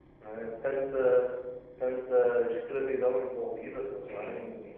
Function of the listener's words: taking over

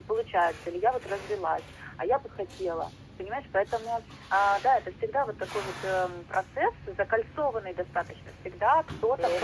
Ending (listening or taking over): listening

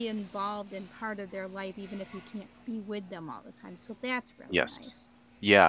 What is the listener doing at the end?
taking over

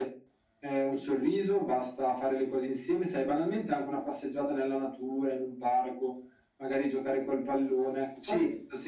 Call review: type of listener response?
taking over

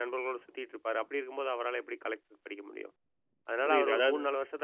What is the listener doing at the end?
listening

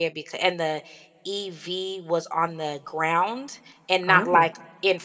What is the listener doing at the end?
listening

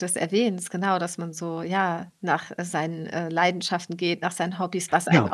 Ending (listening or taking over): listening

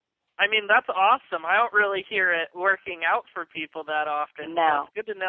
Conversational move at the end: listening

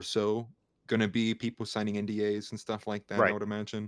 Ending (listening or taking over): listening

